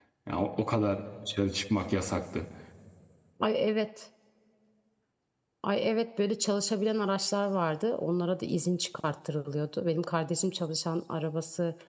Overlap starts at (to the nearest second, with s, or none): none